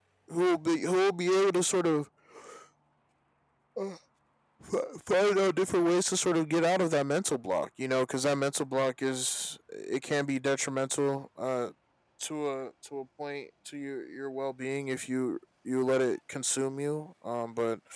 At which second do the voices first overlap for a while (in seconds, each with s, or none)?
none